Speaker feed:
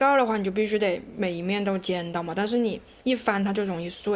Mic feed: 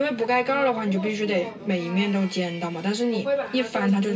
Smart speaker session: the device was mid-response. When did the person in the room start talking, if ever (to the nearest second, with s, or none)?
0 s